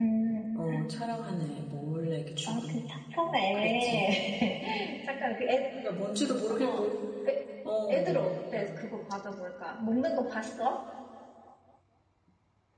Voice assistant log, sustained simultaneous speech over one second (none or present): none